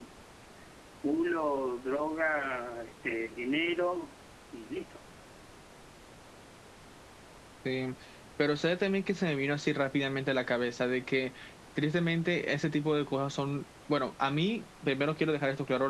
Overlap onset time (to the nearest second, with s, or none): none